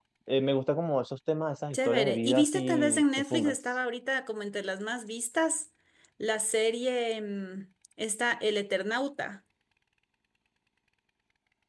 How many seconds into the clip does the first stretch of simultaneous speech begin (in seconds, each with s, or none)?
1.7 s